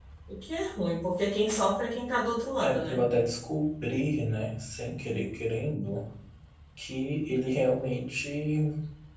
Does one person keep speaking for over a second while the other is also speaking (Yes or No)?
No